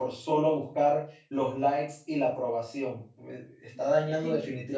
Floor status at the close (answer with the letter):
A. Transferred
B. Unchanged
B